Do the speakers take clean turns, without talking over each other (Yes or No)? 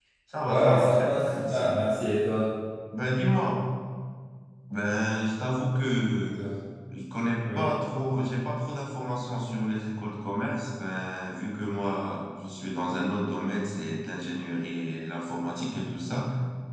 No